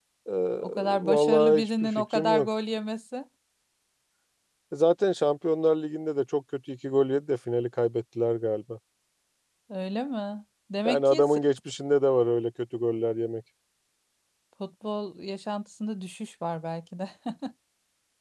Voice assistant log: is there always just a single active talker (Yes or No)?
No